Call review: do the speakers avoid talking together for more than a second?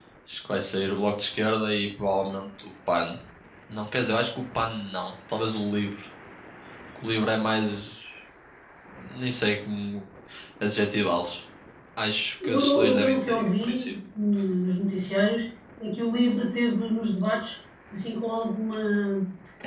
No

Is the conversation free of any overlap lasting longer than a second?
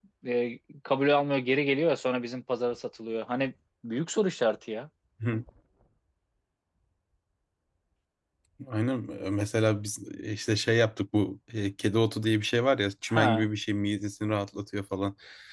Yes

